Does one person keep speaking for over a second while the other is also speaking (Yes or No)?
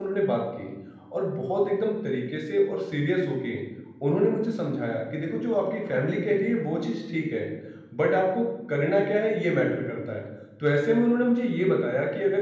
No